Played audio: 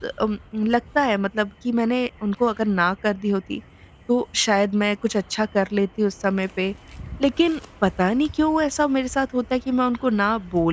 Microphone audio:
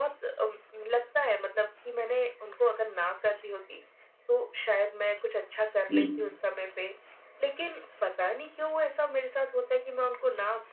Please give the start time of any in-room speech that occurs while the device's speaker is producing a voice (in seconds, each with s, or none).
5.9 s